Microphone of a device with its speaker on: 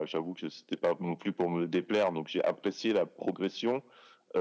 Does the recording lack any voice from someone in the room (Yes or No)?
Yes